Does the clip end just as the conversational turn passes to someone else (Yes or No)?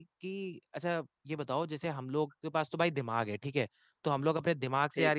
No